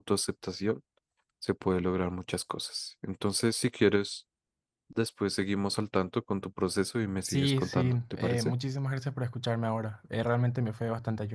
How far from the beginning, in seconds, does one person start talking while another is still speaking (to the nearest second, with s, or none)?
7 s